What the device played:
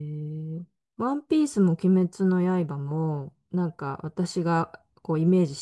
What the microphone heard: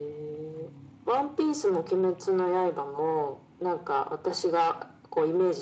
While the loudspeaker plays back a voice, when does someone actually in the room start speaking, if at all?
none

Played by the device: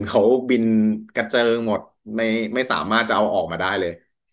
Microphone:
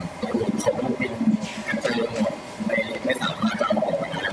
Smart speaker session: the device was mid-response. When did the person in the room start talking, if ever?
none

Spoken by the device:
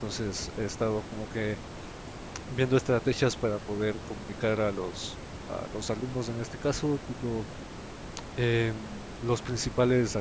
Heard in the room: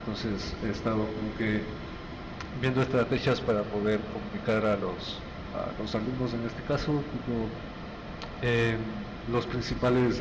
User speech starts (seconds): none

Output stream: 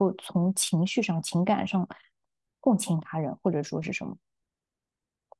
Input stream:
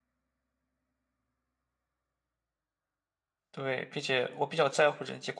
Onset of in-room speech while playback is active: 3.5 s

